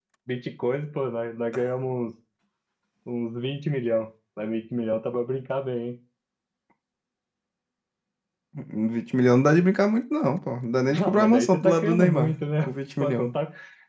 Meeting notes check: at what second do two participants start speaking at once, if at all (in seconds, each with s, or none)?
10.9 s